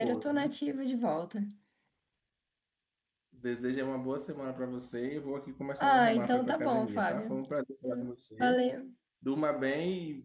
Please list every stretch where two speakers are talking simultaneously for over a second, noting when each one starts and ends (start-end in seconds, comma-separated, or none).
5.8-7.4